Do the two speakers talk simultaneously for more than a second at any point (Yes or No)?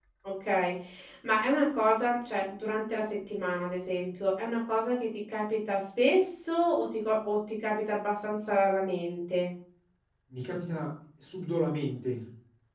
No